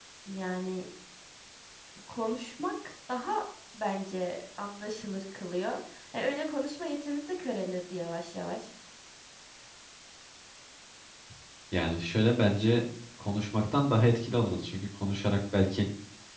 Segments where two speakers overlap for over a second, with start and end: none

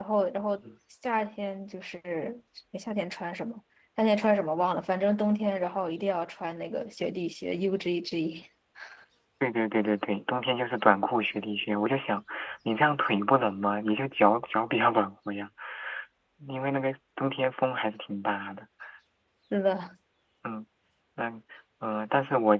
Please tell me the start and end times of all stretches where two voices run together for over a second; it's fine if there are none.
none

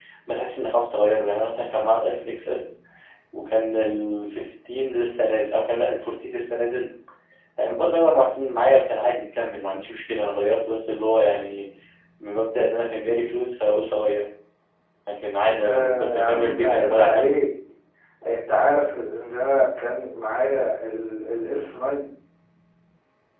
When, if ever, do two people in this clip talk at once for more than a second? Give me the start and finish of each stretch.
15.6-17.4

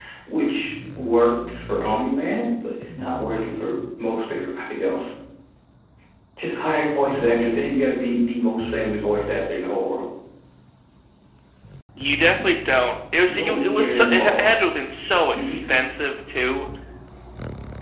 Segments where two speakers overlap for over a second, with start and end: 13.3-14.5

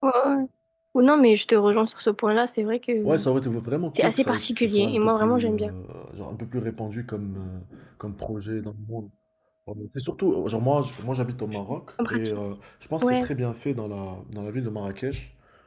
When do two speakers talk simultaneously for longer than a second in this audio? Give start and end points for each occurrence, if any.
4.0-5.7

